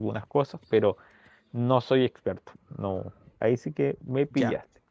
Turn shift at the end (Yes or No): Yes